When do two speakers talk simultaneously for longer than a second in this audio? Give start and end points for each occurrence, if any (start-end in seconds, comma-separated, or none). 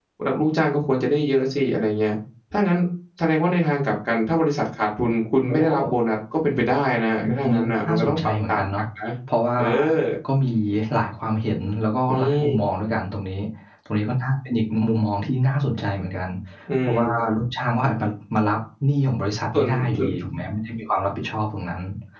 7.1-8.6